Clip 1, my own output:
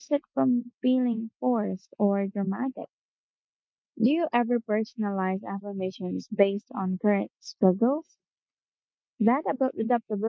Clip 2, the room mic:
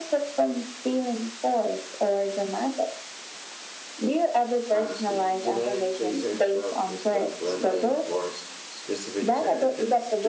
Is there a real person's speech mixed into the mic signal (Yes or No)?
Yes